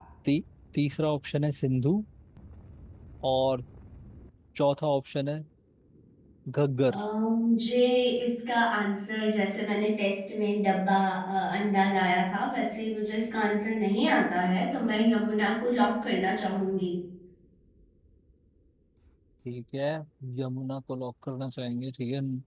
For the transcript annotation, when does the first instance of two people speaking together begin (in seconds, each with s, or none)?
none